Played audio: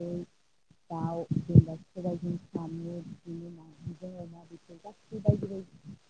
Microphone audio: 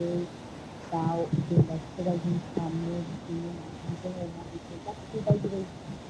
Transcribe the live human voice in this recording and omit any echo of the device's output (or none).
none